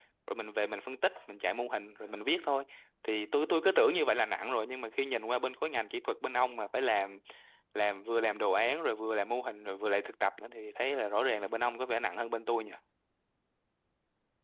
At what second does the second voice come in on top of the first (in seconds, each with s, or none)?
none